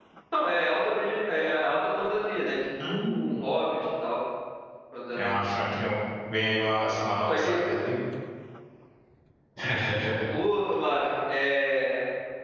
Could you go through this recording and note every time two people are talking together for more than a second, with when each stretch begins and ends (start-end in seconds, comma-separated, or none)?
none